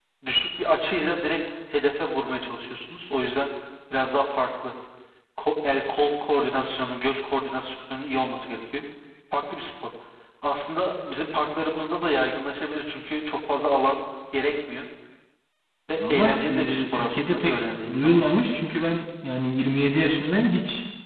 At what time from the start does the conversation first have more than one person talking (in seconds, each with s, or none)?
16.0 s